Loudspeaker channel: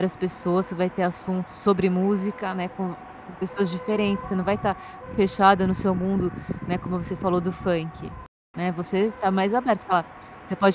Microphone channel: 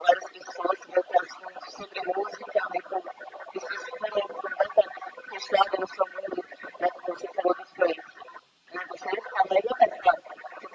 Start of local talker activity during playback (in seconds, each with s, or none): none